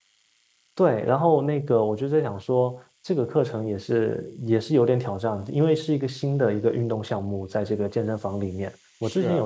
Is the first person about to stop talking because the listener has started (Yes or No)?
No